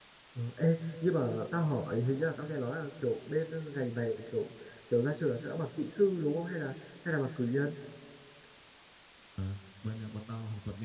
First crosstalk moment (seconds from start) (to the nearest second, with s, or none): none